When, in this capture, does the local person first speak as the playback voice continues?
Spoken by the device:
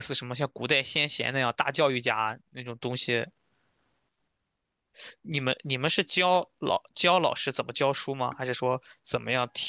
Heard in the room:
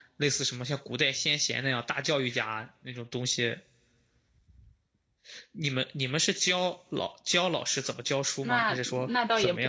8.4 s

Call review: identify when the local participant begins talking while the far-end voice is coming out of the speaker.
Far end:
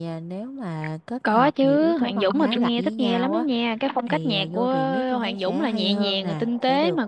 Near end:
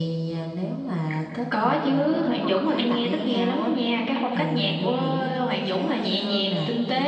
none

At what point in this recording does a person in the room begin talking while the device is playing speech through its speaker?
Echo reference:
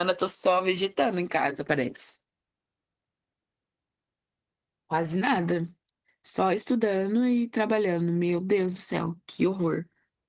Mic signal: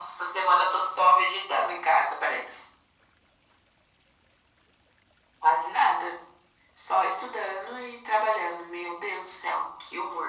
none

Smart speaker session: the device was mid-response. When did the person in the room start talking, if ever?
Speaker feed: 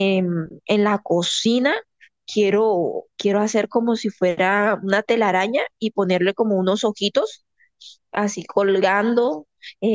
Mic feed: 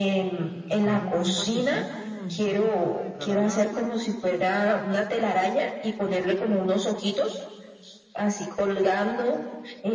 0.8 s

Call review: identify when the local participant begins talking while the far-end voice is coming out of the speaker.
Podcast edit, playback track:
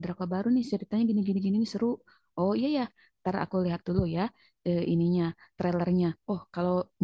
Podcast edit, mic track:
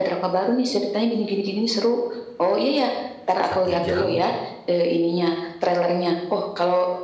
3.5 s

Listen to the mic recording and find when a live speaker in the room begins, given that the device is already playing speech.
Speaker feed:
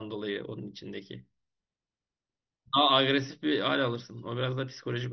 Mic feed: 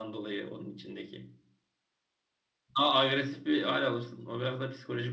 none

